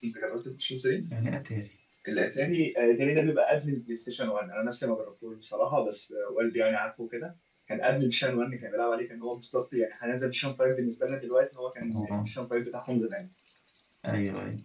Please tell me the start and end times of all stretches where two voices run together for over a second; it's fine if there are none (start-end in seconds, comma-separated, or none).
none